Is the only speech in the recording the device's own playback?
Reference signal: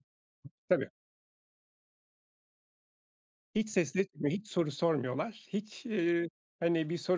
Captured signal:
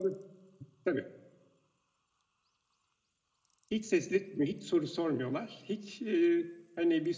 Yes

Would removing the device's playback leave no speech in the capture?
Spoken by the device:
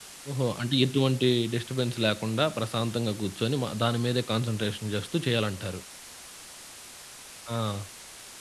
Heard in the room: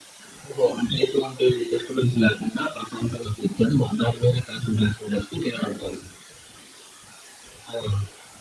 Yes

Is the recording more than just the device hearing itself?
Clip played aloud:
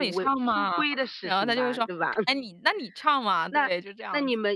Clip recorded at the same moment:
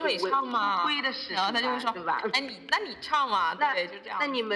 No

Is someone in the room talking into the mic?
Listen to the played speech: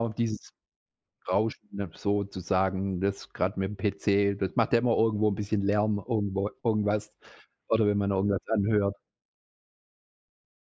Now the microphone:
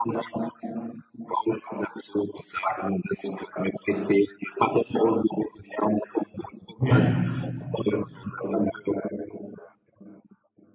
Yes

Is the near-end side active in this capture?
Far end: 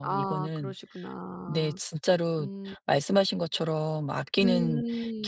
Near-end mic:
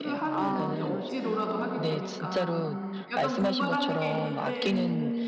Yes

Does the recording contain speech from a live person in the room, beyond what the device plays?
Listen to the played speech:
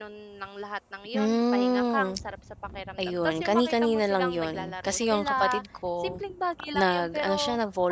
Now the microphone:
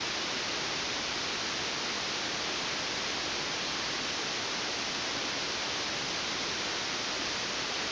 No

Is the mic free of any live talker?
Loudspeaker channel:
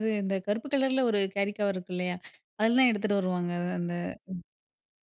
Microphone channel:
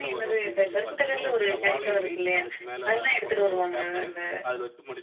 No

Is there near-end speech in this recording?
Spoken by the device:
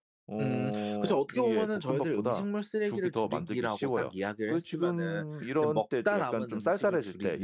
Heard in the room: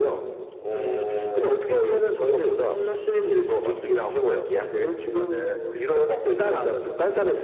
No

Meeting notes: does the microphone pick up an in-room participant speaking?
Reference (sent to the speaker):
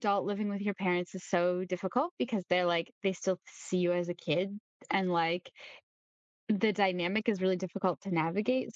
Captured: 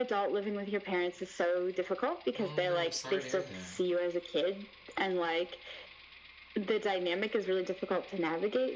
Yes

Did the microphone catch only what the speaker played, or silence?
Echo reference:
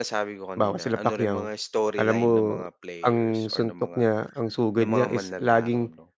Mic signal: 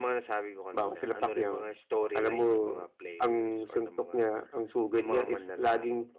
Yes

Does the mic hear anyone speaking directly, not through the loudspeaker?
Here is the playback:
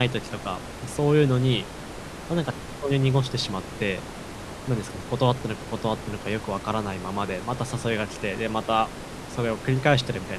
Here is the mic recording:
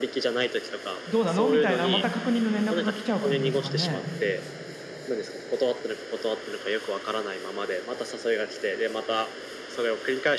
Yes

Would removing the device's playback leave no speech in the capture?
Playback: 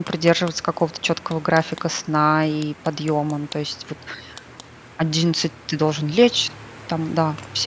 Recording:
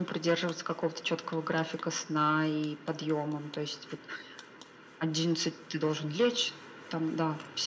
Yes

